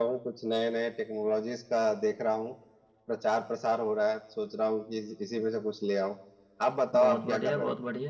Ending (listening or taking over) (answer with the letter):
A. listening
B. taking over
B